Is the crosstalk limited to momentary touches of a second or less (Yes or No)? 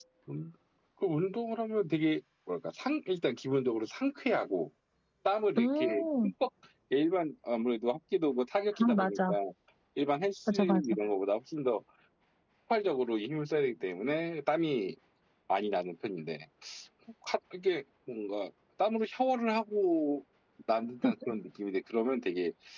Yes